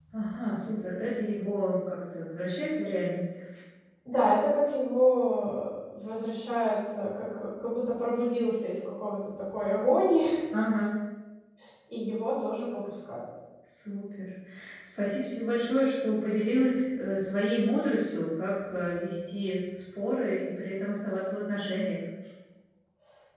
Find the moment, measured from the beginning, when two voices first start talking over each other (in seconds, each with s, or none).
none